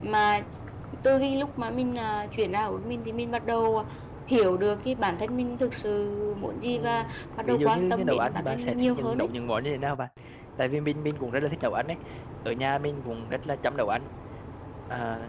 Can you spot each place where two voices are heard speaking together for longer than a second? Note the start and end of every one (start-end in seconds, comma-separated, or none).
7.4-9.3